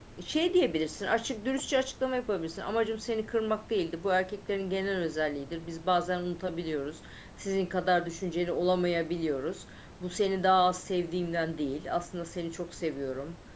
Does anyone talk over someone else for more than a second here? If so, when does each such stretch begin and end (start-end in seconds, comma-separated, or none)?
none